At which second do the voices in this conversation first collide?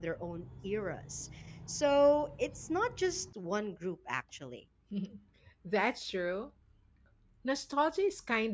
none

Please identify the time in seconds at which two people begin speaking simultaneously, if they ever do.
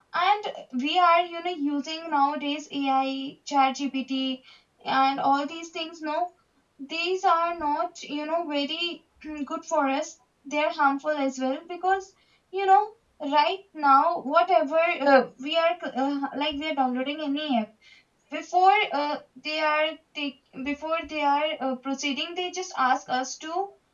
none

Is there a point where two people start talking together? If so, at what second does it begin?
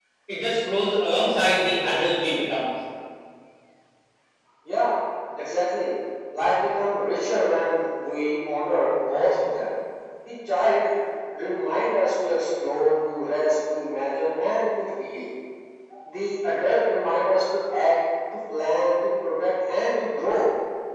none

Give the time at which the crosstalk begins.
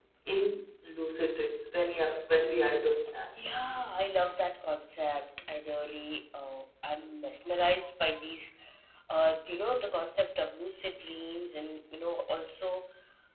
none

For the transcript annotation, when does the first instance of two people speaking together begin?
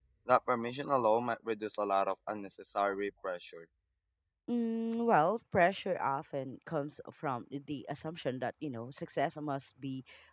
none

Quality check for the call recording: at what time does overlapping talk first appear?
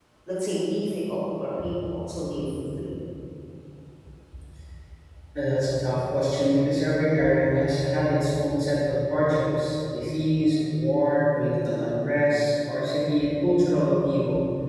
none

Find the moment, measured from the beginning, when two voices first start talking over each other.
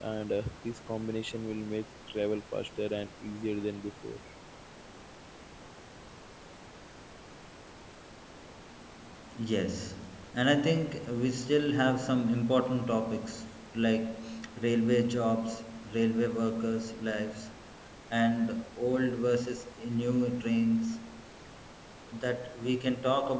none

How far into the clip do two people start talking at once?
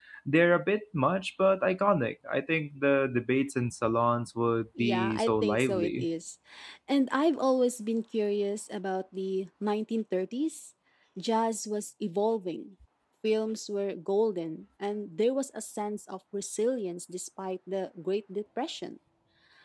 4.8 s

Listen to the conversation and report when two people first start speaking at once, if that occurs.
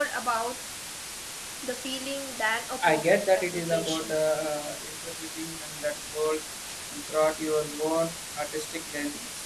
2.8 s

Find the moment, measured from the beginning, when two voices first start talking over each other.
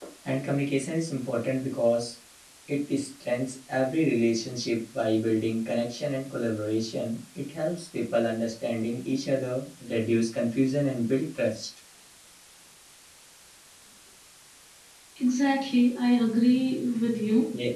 none

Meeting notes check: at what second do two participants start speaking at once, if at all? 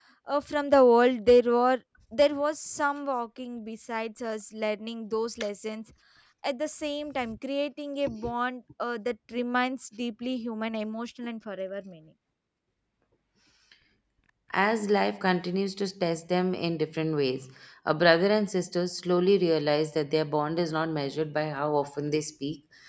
none

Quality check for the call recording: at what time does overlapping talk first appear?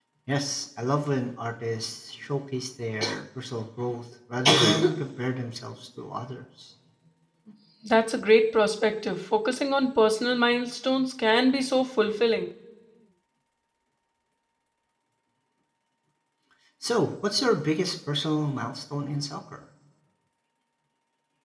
none

